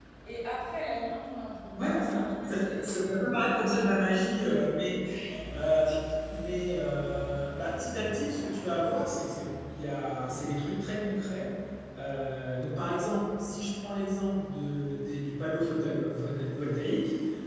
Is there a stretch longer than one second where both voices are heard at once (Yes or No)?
Yes